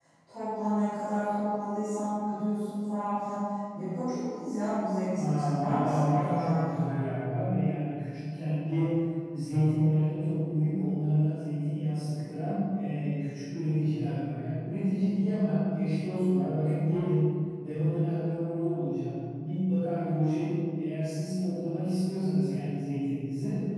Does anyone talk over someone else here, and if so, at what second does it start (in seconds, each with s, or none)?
5.2 s